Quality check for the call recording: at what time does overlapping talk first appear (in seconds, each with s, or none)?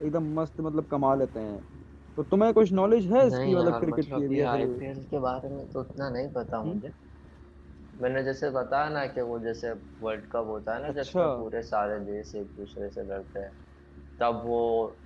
3.2 s